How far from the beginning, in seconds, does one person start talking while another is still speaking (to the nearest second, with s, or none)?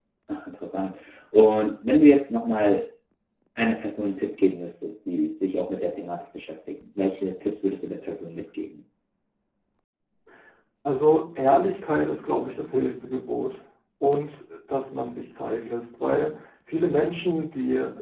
none